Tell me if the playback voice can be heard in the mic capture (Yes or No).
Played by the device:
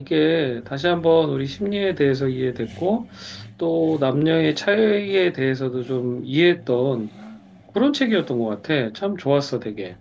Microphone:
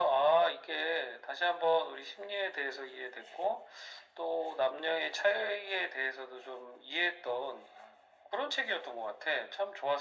Yes